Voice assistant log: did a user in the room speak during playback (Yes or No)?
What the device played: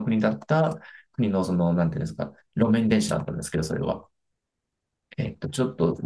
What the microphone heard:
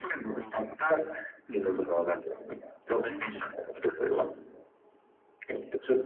Yes